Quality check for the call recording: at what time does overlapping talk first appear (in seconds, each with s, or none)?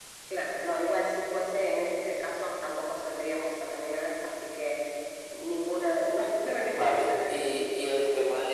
6.7 s